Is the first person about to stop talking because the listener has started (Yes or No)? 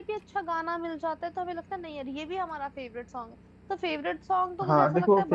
Yes